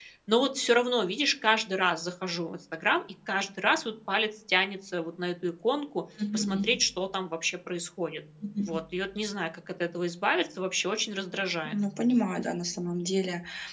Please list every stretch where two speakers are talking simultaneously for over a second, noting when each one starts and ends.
none

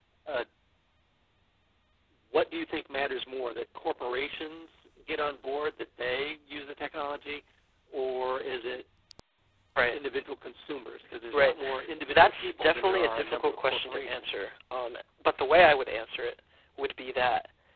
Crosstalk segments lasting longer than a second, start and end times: 12.1-14.5

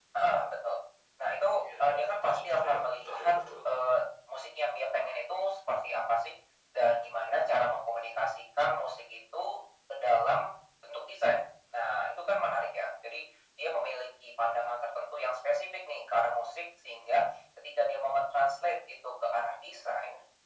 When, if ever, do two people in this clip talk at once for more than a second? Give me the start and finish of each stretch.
1.6-3.3

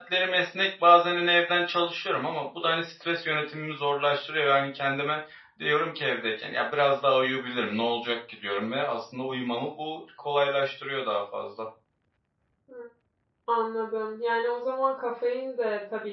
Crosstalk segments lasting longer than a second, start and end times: none

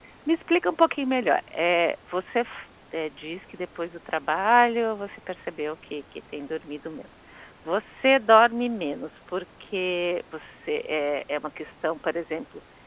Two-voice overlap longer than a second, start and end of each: none

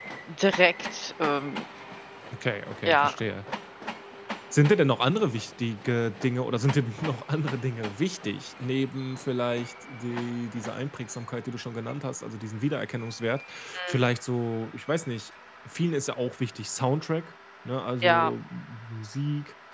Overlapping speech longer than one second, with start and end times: none

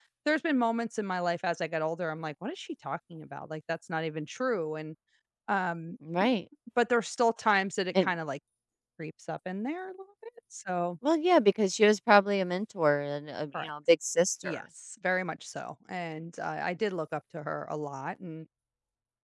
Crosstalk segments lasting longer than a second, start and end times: none

